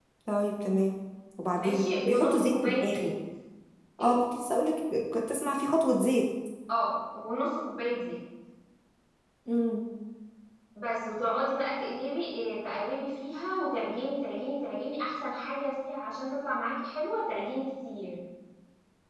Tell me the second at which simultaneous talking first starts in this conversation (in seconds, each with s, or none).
1.5 s